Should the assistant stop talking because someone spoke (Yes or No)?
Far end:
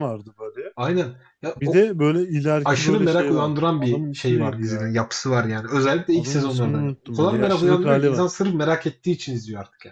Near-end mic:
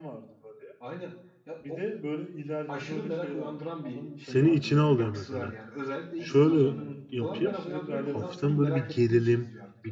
Yes